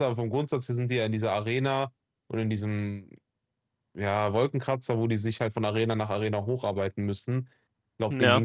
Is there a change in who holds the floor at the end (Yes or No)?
No